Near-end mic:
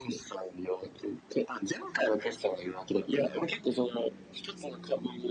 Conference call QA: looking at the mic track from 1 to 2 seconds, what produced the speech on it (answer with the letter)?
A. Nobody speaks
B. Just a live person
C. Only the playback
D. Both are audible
C